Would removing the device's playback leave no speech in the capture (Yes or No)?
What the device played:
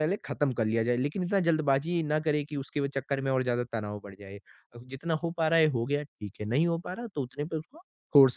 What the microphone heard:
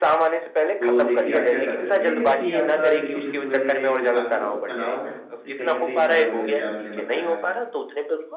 No